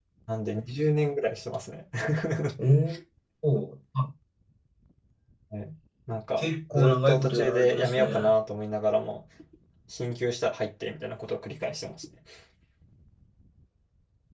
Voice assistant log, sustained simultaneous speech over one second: present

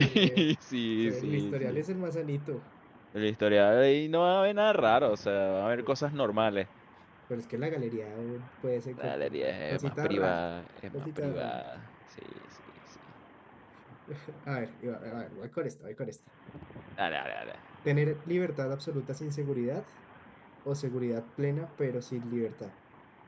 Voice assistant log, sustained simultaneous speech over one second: present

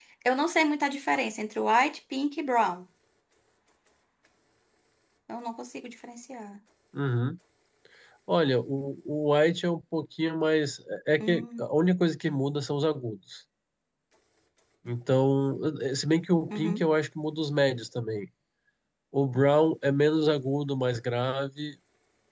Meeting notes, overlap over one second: none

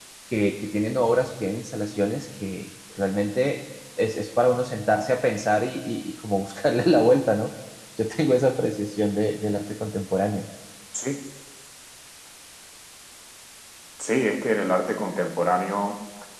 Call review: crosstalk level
none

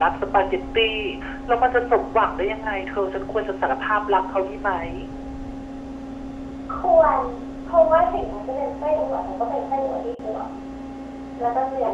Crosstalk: none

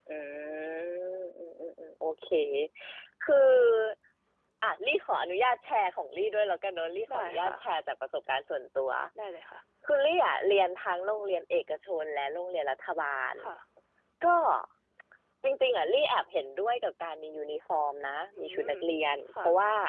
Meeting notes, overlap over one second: none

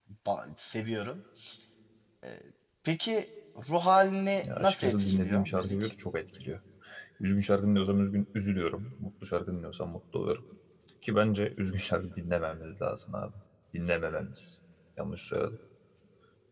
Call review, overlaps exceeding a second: present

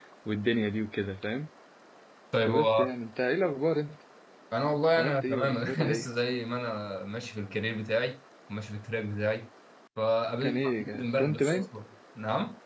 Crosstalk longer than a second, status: present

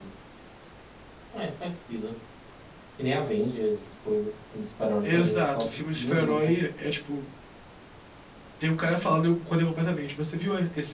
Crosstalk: present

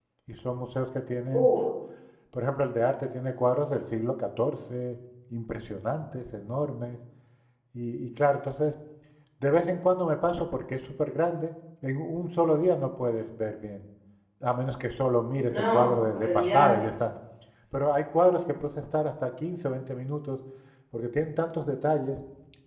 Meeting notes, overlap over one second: present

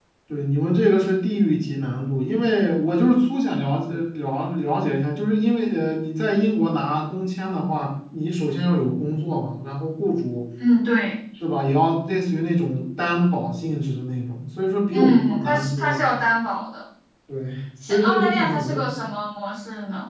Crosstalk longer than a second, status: present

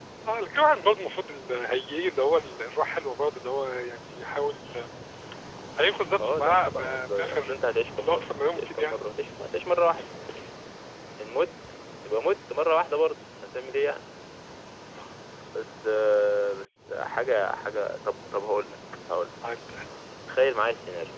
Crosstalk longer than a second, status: present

